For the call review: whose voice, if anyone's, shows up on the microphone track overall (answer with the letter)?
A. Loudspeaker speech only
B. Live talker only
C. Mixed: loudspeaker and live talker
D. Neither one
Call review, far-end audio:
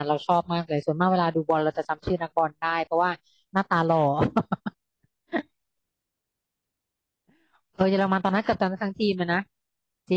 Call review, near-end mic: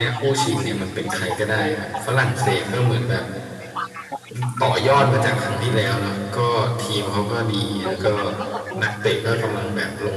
C